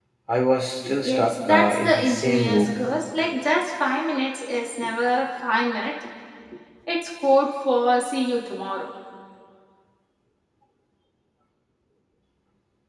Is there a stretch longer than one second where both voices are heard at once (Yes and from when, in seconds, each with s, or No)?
Yes, from 1.0 s